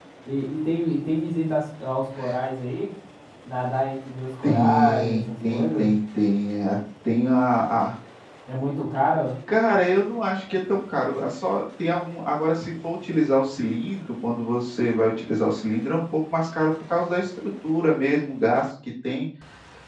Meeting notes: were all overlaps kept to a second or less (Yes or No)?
No